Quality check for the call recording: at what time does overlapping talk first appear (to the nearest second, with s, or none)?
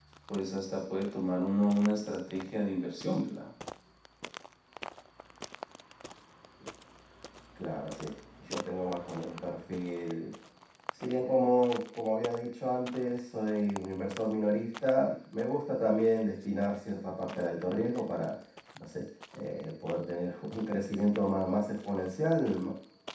none